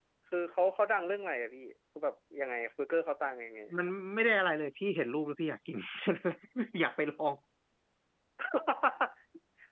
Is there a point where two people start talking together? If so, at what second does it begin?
none

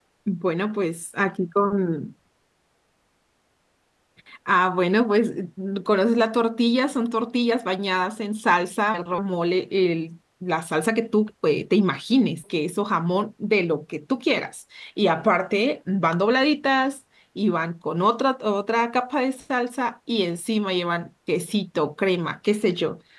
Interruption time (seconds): none

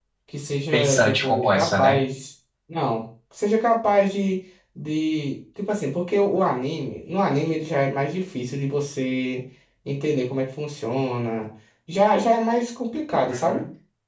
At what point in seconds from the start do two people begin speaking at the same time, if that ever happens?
0.7 s

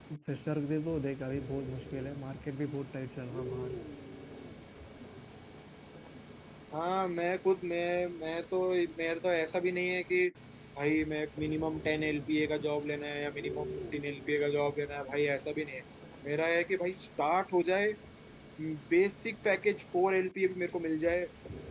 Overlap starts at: none

